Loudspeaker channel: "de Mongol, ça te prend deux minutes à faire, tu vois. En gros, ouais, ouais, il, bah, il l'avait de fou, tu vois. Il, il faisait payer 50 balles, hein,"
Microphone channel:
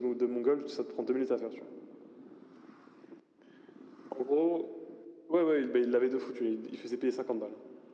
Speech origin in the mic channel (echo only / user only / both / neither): echo only